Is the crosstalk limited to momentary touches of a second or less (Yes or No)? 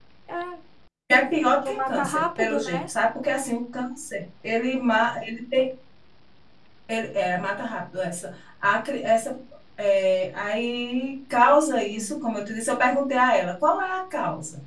No